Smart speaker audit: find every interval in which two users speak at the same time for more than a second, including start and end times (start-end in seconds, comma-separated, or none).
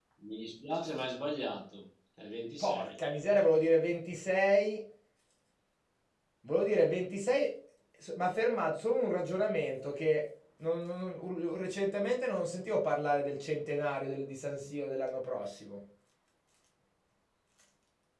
none